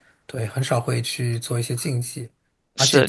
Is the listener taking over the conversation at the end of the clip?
No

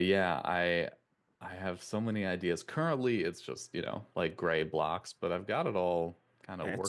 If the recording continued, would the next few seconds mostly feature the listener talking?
Yes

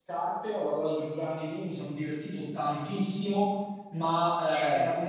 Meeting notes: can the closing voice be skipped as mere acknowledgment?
Yes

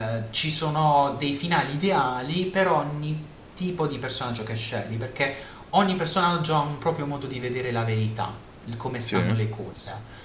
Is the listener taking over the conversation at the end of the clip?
No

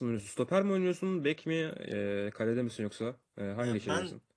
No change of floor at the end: No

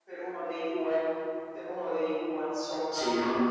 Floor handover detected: Yes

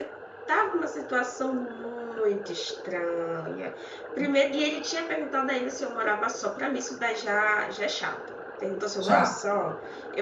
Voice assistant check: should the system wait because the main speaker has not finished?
Yes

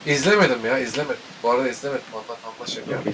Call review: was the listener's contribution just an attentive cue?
No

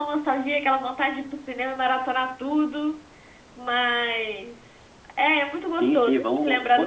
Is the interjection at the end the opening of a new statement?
Yes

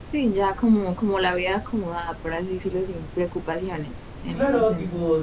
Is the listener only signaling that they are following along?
No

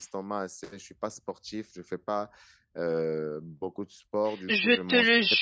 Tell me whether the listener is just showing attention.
No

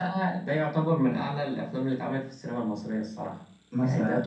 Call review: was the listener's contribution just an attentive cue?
No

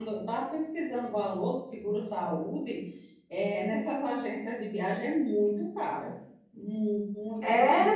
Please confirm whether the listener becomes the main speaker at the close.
Yes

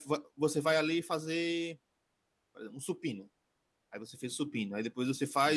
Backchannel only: Yes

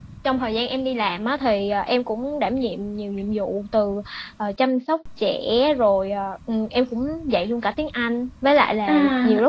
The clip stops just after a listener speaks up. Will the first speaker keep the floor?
Yes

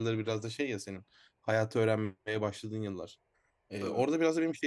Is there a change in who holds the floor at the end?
No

